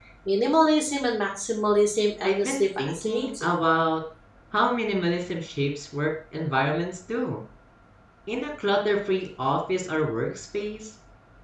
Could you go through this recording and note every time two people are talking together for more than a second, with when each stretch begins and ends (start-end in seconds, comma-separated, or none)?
2.2-3.5